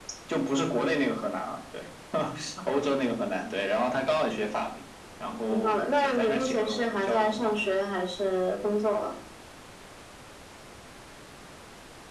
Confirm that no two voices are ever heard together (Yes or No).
No